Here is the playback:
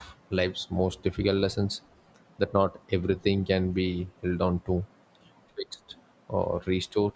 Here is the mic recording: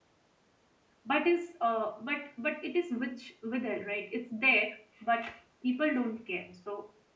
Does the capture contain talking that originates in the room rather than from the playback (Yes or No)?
Yes